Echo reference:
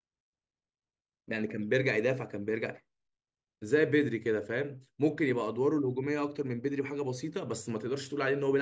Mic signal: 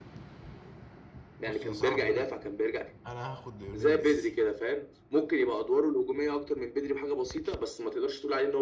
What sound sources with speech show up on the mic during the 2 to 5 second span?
both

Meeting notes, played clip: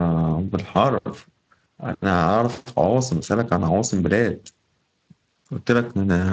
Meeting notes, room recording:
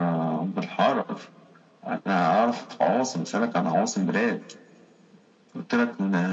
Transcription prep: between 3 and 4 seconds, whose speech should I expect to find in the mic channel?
echo only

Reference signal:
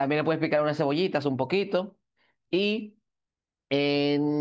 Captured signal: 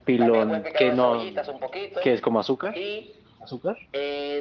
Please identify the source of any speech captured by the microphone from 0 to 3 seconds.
both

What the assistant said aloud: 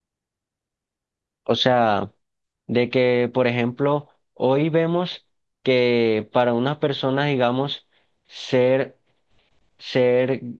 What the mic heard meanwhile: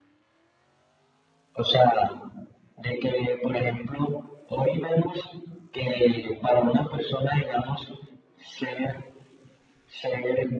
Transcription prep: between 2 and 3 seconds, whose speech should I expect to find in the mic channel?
echo only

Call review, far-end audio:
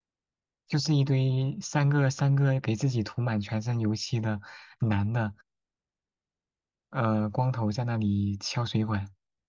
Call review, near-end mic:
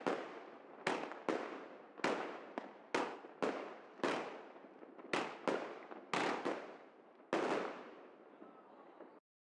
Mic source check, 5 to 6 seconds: neither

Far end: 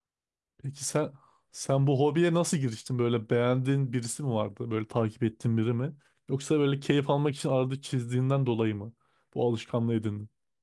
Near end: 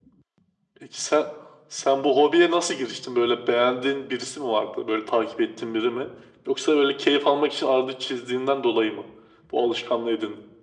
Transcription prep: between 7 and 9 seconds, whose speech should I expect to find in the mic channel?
echo only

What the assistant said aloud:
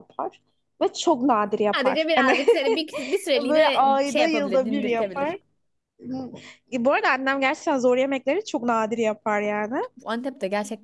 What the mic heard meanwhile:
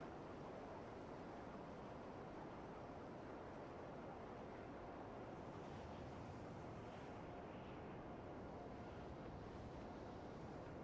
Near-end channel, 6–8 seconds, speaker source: neither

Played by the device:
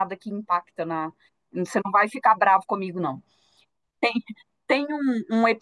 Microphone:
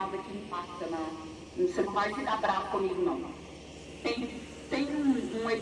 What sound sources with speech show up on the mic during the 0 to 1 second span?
echo only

